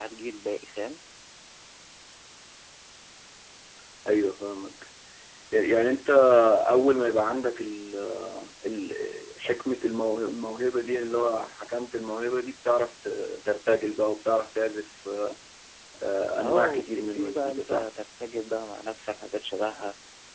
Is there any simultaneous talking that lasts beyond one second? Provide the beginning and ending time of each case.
16.4-17.9

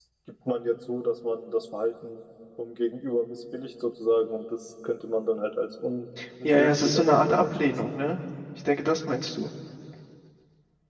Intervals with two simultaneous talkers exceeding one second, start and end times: 6.4-7.9

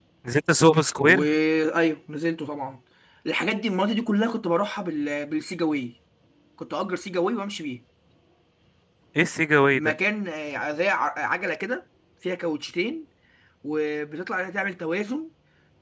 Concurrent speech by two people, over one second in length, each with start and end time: none

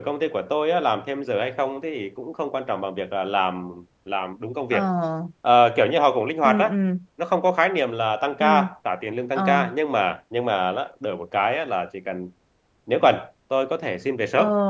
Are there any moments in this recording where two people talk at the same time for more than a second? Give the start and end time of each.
none

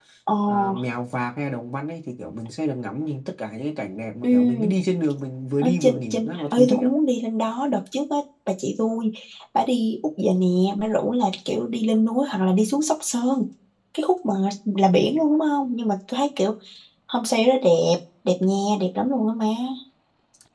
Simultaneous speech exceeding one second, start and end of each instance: 5.6-6.9

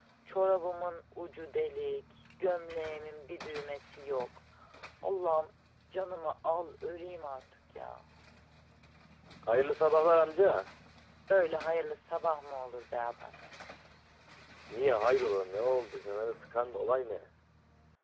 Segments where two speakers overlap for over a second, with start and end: none

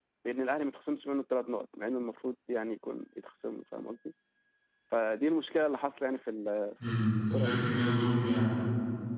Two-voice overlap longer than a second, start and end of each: none

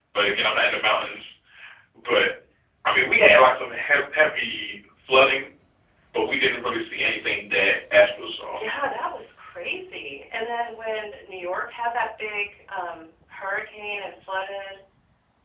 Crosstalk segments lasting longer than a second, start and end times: none

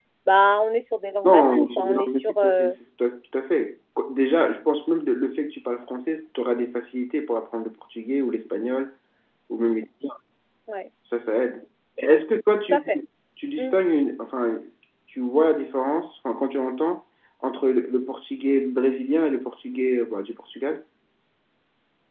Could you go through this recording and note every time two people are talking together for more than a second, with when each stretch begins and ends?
1.2-2.7

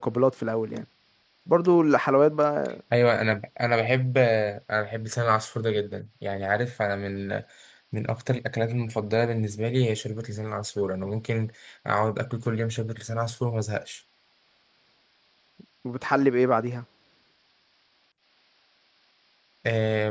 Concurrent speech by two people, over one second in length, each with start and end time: none

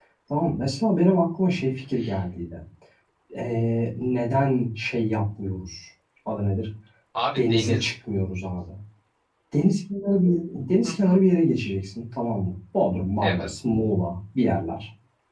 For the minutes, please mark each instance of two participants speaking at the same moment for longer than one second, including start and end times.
none

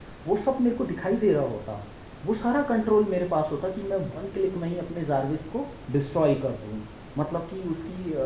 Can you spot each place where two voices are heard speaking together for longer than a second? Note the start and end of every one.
none

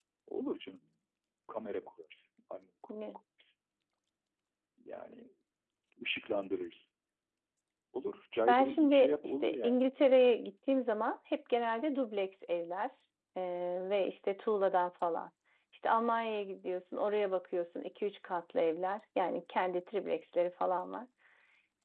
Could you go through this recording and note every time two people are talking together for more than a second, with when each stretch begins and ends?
8.5-9.9

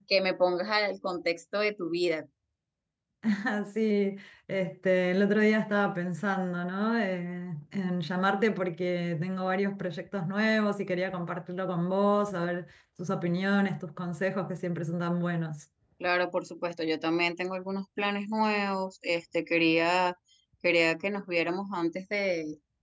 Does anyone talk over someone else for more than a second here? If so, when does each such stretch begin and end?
none

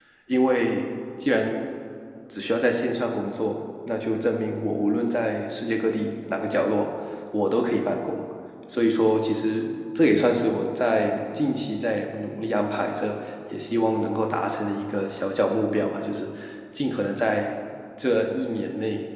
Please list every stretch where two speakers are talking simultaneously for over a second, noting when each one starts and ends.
none

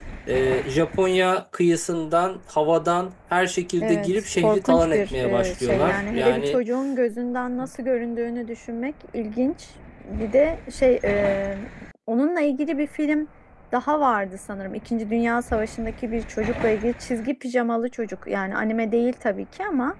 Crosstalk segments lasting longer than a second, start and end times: 3.8-6.6

